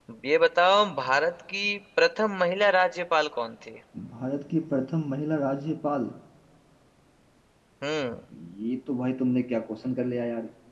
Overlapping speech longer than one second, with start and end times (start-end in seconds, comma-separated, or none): none